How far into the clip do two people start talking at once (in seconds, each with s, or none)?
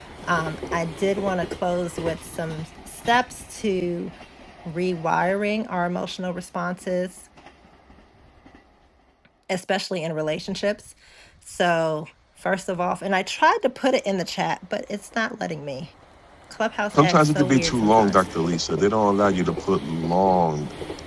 16.9 s